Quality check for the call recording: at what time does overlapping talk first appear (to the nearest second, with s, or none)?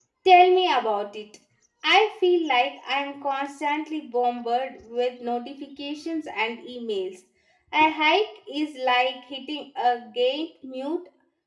none